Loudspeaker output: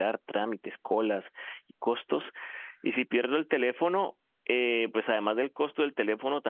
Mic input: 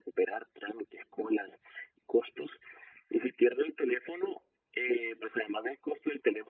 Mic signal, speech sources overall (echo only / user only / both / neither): echo only